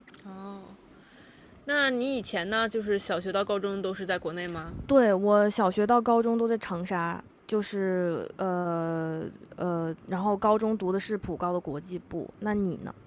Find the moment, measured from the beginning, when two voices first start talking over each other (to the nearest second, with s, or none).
none